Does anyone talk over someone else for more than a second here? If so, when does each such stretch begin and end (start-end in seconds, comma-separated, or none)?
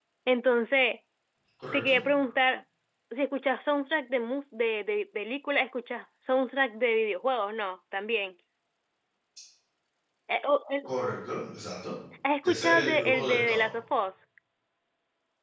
12.4-13.7